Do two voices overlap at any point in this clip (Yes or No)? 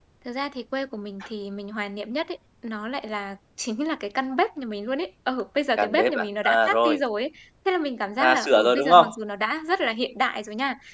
Yes